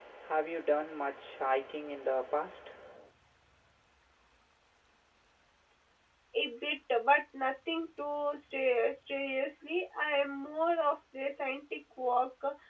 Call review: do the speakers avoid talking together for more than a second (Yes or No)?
Yes